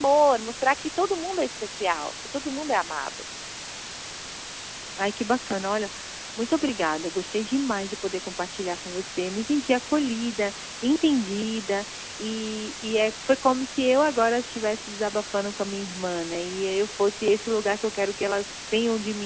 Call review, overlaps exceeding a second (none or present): none